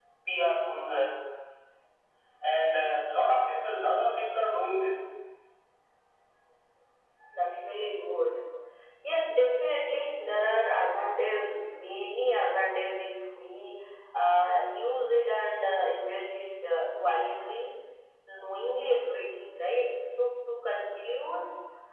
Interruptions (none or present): none